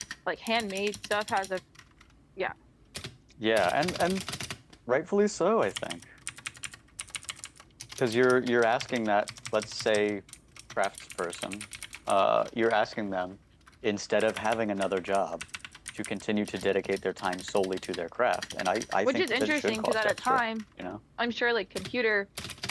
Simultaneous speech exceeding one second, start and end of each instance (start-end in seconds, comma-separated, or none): 19.0-20.4